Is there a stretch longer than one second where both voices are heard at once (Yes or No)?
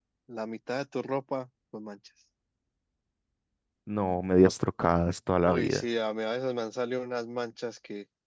No